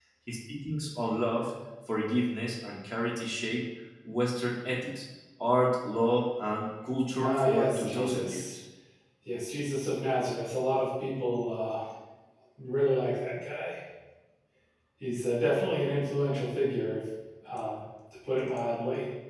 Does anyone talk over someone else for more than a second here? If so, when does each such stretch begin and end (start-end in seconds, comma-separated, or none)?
7.2-8.4